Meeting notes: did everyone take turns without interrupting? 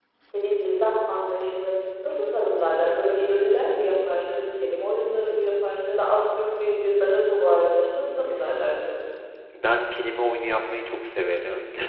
Yes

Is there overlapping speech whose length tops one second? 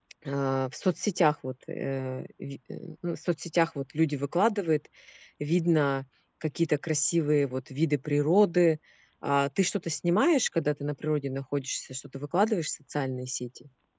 No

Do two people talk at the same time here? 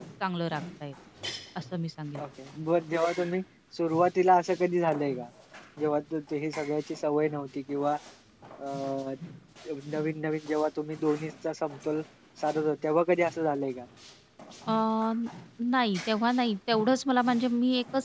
No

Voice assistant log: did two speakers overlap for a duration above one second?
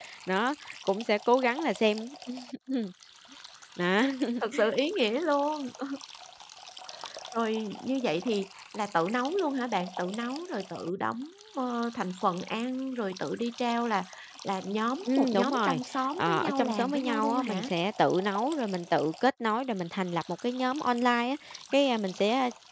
Yes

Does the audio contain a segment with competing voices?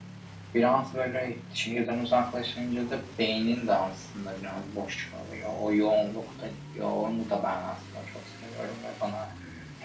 No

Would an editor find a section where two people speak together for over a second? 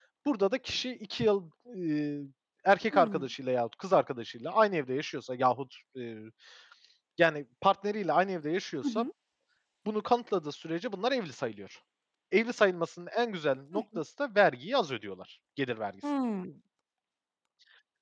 No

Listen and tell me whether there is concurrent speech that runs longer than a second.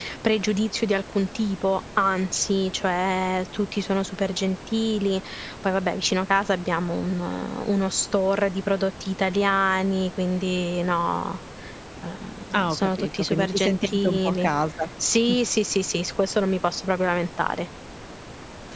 Yes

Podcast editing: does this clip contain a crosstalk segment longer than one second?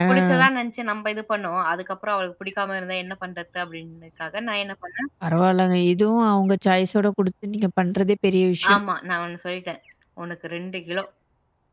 No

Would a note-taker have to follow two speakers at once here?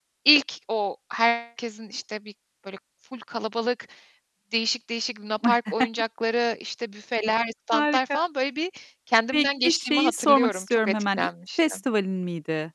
Yes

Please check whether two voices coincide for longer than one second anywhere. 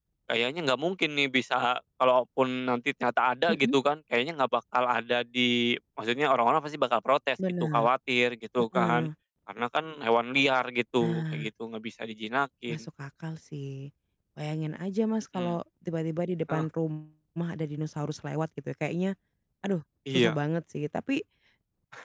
No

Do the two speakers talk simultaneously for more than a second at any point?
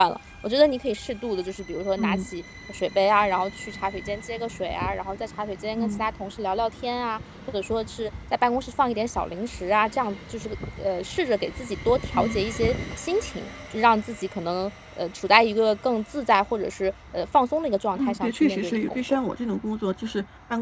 Yes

